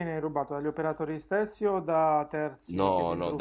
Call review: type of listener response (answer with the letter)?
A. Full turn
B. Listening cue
A